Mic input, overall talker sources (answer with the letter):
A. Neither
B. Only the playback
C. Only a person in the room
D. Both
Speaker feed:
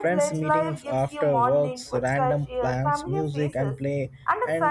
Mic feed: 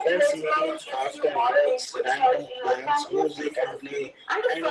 B